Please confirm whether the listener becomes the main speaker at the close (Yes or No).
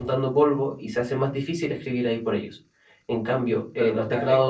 Yes